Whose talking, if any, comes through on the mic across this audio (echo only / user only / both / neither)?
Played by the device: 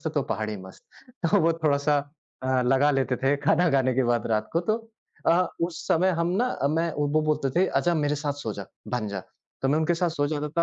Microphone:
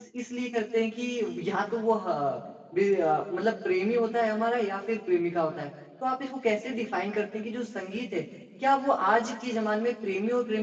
user only